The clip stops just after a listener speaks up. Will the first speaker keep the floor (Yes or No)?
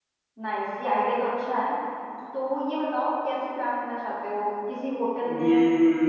No